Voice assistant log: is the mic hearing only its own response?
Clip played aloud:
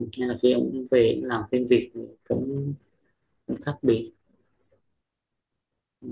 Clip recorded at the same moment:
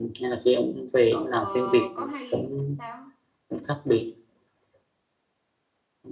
No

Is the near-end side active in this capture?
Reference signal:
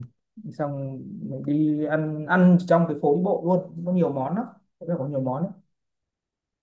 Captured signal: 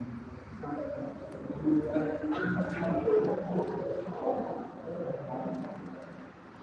No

